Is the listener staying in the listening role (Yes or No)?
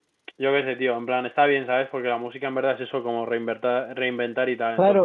No